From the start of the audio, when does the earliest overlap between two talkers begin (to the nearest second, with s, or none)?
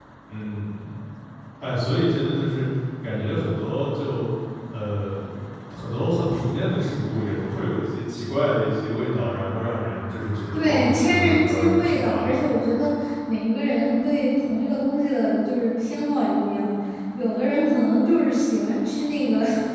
11 s